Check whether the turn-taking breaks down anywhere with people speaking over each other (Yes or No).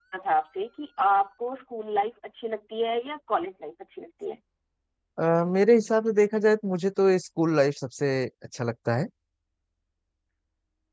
No